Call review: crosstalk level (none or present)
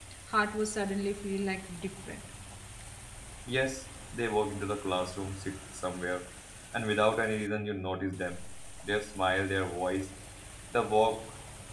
none